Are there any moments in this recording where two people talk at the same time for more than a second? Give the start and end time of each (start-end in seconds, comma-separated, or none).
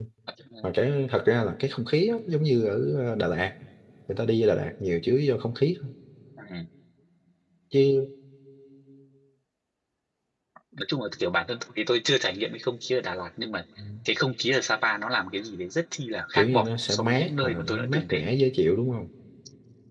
16.3-18.3